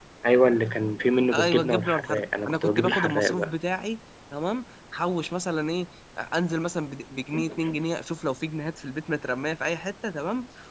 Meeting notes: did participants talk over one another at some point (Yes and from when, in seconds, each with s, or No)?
Yes, from 1.4 s